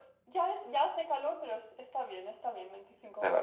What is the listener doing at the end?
taking over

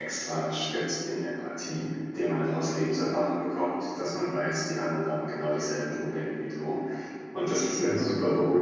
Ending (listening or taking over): listening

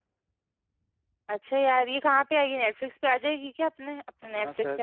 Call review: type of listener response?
taking over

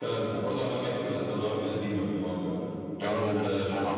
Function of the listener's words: taking over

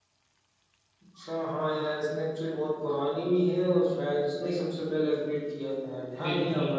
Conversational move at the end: taking over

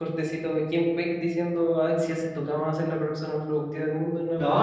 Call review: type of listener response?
taking over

